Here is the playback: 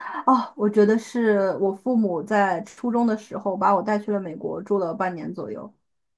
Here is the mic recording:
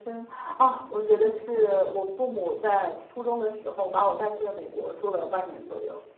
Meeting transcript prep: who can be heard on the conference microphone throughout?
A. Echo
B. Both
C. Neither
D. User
A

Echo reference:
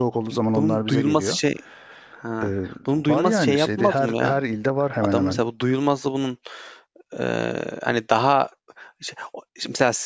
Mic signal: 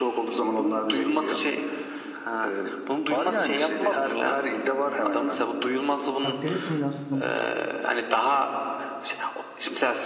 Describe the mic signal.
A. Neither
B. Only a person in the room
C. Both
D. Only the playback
C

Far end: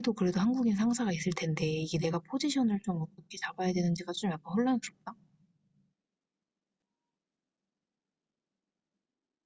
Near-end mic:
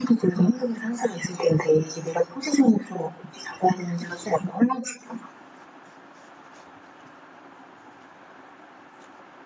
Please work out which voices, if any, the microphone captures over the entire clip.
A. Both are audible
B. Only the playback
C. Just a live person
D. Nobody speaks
B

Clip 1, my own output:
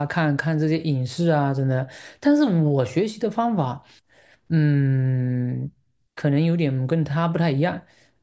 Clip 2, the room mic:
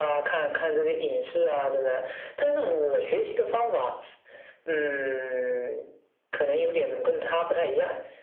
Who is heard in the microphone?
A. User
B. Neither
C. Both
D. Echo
D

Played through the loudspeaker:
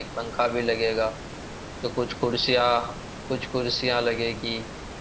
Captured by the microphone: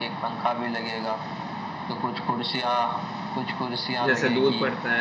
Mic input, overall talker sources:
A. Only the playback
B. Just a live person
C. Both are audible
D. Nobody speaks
C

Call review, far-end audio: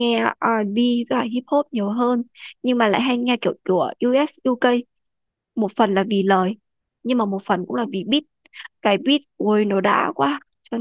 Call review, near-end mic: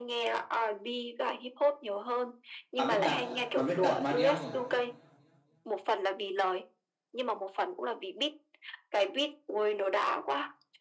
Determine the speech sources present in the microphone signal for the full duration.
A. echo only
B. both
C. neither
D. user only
B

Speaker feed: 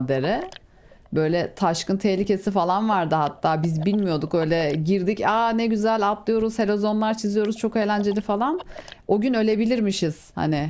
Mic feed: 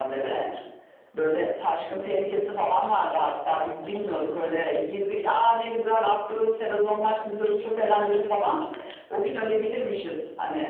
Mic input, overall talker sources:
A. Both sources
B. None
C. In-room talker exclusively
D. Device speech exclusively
D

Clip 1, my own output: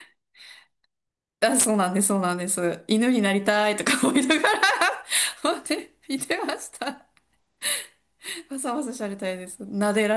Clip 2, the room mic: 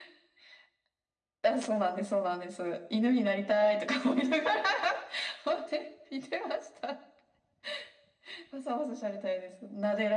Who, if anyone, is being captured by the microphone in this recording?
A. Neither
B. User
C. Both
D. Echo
D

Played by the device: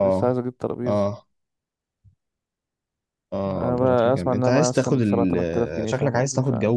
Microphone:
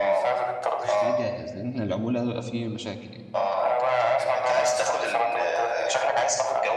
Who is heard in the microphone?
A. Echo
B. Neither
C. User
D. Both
D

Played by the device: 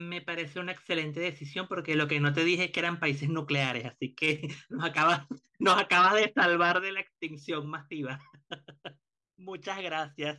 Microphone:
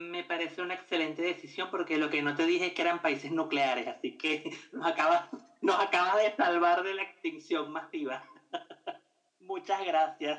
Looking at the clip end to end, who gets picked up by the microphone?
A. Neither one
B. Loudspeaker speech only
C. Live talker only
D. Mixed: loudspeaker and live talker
B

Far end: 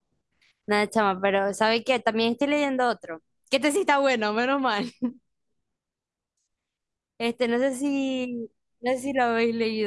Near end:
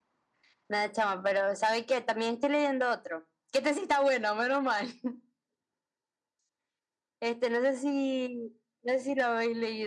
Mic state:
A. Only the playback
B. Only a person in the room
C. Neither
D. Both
A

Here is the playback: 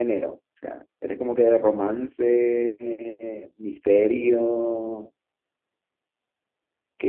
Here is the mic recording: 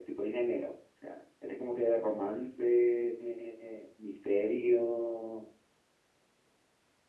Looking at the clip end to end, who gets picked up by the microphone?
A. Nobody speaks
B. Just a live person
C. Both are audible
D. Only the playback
D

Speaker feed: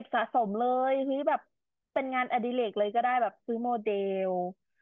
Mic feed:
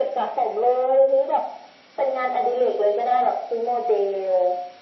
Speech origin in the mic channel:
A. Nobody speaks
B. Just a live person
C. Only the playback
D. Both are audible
C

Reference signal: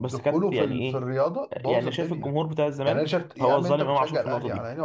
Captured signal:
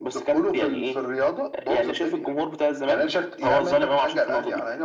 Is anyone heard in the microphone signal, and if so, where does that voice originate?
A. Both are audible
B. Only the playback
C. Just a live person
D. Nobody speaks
B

